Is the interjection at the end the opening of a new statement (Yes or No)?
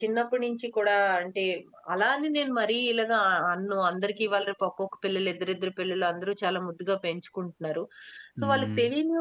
No